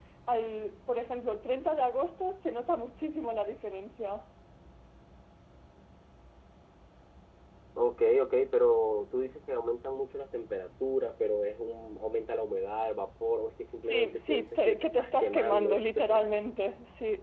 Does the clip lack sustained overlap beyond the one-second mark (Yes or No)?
No